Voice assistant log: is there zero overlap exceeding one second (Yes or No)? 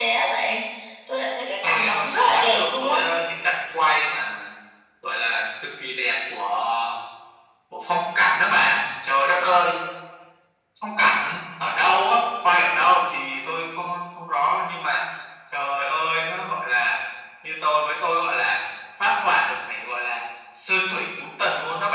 No